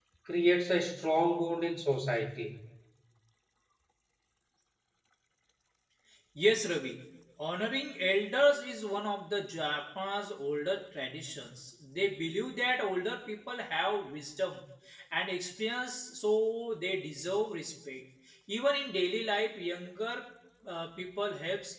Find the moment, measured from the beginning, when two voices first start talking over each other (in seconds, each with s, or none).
none